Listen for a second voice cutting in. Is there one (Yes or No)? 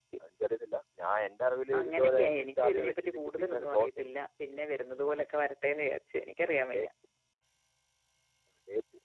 Yes